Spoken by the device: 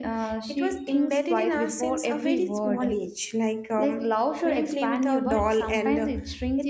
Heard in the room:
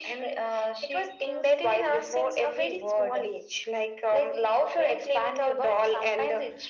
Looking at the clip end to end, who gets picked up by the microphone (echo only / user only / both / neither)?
echo only